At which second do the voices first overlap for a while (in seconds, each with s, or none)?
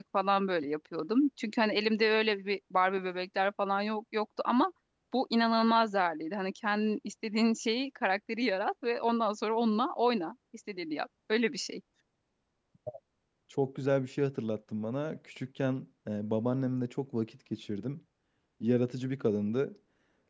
none